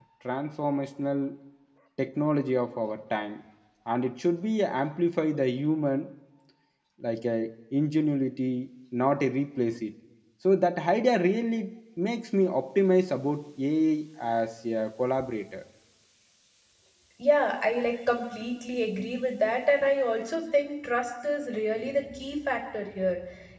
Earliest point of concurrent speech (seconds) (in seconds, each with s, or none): none